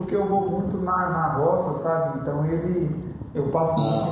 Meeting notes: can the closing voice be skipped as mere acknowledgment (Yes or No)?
Yes